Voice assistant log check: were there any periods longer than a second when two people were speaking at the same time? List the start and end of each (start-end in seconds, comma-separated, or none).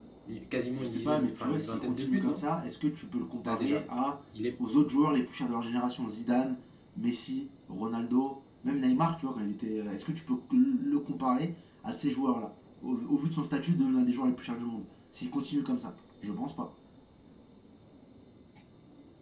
0.8-2.4